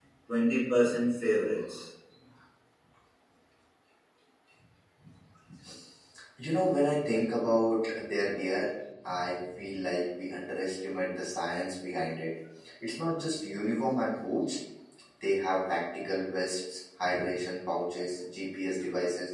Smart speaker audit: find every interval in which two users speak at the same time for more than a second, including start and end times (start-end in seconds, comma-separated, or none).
none